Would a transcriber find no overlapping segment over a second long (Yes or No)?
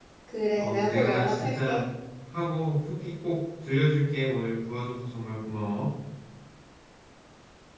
No